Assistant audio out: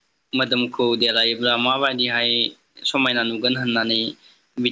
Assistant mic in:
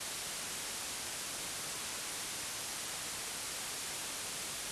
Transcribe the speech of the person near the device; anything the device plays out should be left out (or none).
none